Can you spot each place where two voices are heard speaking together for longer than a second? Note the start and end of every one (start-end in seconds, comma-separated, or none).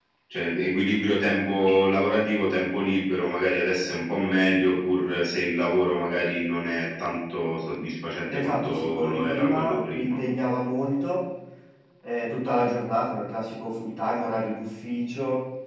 8.3-10.2